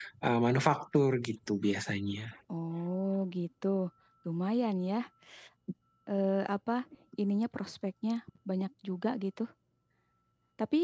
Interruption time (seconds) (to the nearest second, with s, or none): none